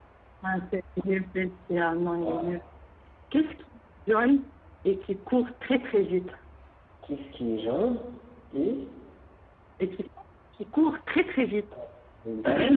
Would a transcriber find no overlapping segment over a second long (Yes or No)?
Yes